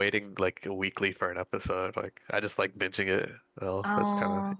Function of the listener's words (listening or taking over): taking over